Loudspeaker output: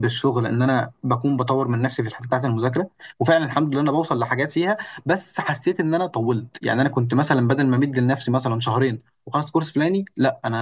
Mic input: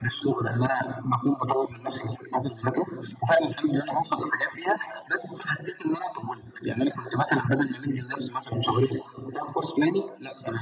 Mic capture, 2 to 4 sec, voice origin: echo only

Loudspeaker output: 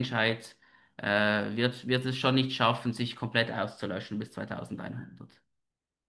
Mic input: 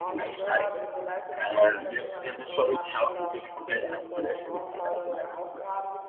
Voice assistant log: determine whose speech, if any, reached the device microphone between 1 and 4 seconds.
both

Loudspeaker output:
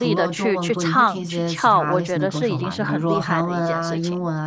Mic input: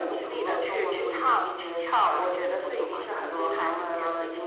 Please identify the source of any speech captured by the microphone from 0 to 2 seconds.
echo only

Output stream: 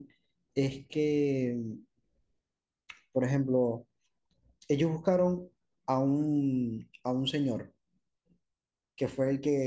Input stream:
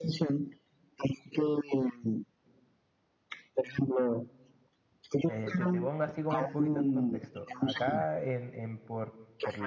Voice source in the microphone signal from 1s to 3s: echo only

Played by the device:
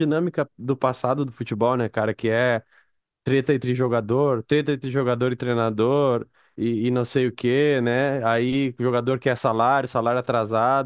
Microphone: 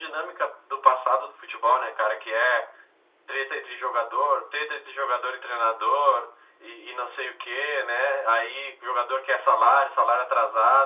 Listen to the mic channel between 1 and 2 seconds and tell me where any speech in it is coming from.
echo only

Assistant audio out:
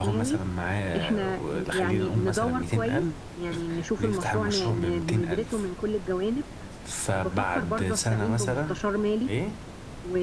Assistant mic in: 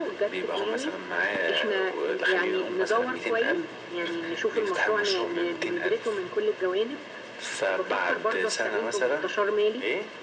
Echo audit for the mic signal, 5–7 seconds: echo only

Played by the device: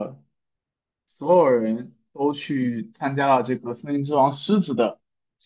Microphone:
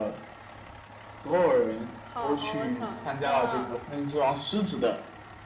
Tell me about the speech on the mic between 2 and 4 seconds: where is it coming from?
both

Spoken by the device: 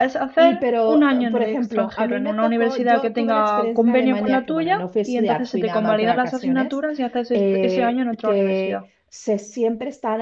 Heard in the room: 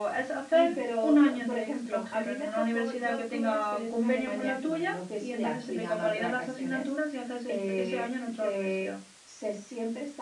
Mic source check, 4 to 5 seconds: echo only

